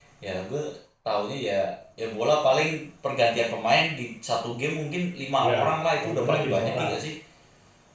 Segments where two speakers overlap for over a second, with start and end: 5.4-6.9

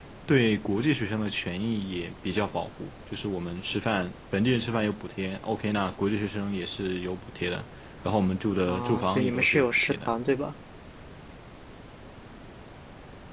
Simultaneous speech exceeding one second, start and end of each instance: 8.7-10.1

